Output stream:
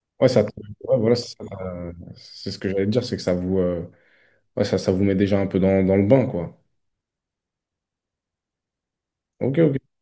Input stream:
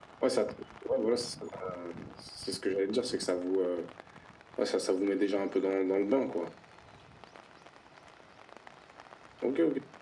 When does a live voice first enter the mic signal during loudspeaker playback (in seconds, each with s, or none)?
none